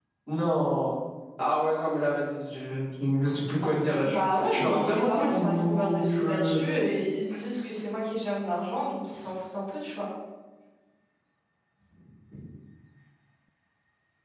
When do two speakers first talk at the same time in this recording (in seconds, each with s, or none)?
4.0 s